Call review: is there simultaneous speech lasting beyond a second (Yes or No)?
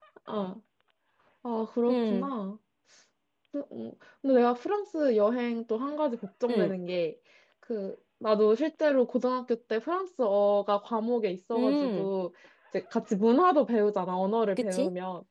No